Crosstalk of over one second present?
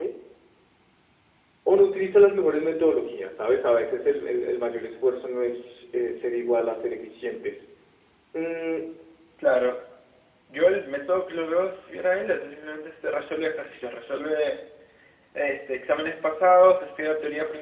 No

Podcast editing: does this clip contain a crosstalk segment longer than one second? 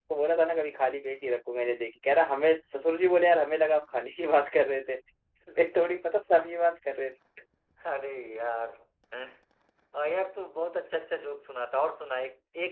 No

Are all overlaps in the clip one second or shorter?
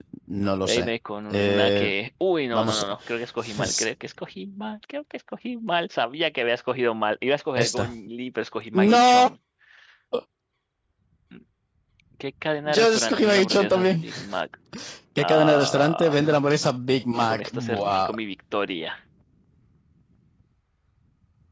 No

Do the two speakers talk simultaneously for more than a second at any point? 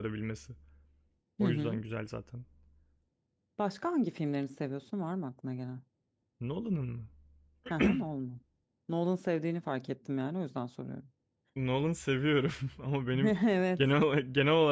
No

